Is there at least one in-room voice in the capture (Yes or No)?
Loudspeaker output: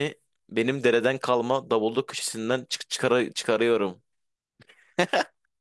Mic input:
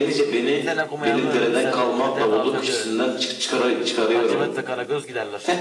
Yes